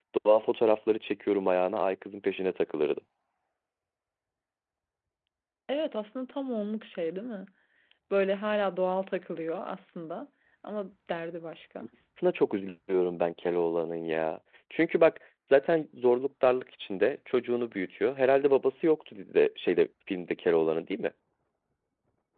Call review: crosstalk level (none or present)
none